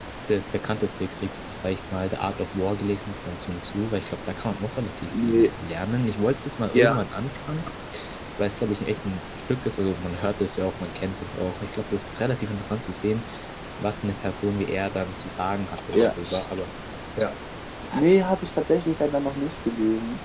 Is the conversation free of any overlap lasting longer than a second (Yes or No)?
Yes